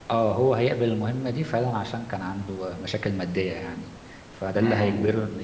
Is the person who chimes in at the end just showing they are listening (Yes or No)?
Yes